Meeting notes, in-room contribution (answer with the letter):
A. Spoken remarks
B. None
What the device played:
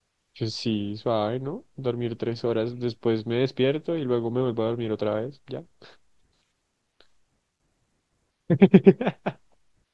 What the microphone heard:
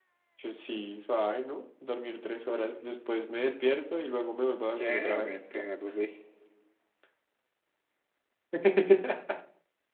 A